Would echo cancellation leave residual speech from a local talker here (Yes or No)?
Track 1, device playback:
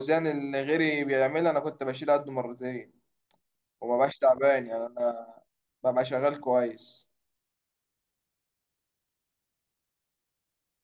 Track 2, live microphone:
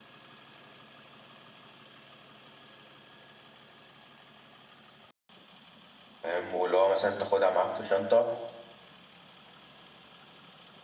Yes